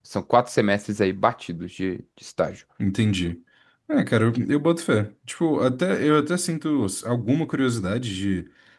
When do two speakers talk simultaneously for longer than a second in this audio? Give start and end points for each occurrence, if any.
none

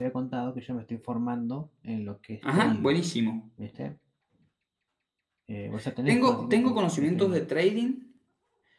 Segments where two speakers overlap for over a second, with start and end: 6.1-7.4

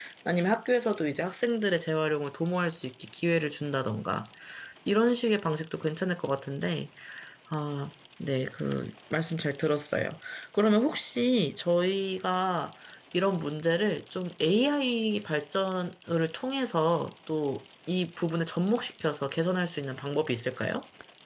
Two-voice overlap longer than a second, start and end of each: none

